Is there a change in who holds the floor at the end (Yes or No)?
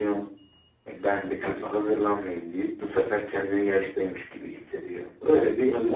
Yes